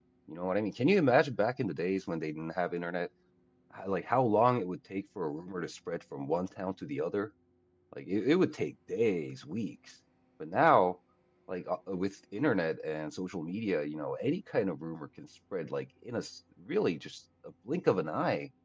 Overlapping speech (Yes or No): No